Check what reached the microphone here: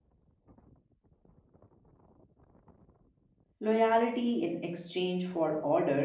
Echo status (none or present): none